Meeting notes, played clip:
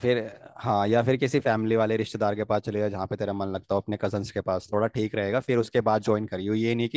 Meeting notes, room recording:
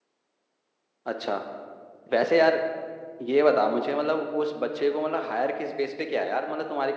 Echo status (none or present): none